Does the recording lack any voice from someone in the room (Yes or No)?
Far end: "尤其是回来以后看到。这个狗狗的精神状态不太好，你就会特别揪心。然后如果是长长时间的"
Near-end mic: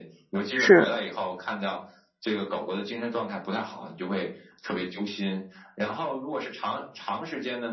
No